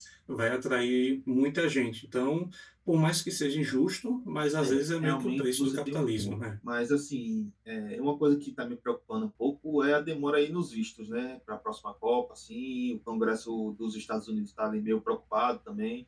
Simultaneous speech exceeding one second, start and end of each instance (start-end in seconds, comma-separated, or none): 4.6-6.3